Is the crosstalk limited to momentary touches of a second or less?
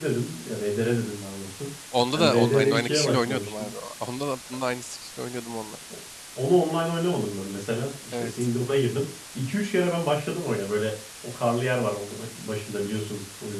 No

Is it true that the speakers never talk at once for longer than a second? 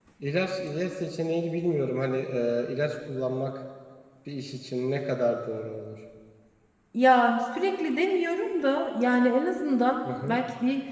Yes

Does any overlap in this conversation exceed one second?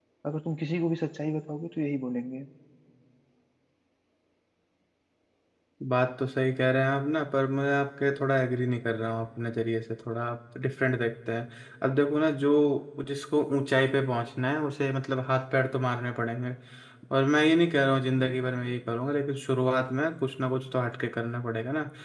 No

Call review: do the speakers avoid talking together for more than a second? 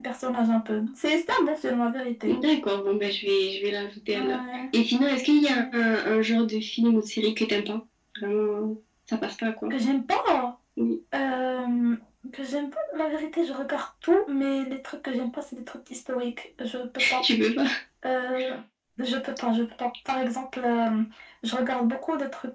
Yes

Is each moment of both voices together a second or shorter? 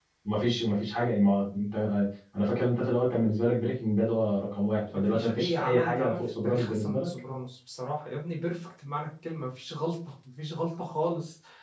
No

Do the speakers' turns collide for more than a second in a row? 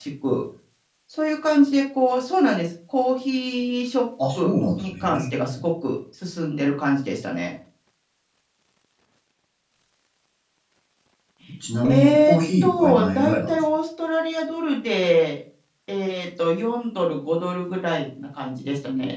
Yes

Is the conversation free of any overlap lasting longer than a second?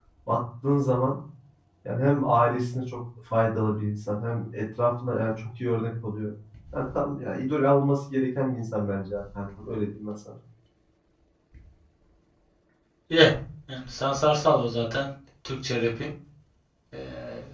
Yes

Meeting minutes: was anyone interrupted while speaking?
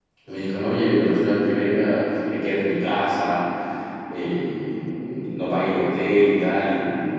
No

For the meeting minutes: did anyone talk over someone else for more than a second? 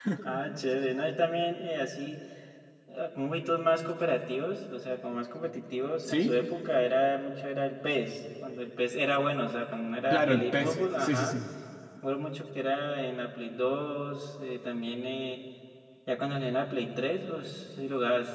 Yes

